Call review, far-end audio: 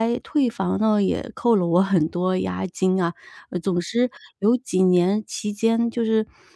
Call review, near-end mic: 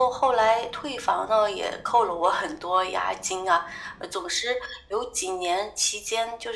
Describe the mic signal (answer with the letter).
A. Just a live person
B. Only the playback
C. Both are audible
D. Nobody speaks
B